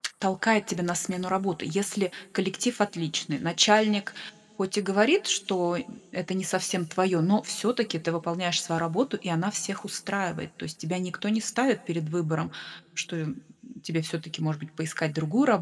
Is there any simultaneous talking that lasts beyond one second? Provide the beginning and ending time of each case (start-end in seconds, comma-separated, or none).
none